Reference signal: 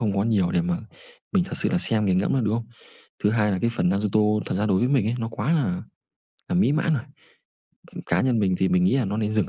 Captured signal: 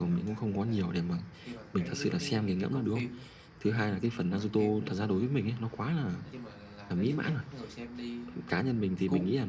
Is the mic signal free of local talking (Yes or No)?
No